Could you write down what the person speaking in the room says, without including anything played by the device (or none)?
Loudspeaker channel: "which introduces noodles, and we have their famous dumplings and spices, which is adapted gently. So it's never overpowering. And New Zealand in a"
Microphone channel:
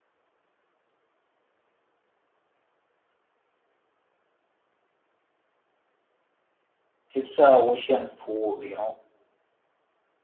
it's a ocean food you know